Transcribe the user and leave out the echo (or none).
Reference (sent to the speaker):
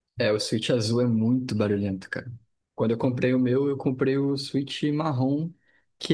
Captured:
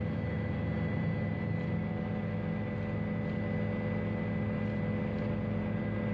none